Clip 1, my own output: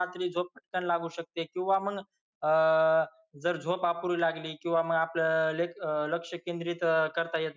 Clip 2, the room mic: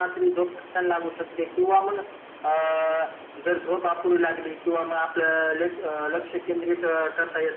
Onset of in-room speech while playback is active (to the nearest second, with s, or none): none